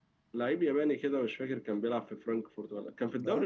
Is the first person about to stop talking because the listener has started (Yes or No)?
No